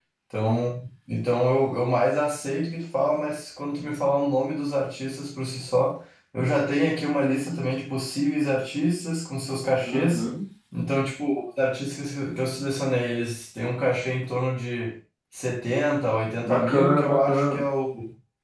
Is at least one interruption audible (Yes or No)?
Yes